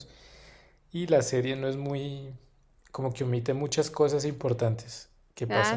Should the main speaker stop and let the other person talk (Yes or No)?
Yes